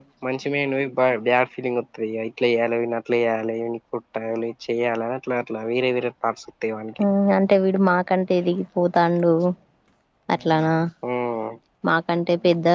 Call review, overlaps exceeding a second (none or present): none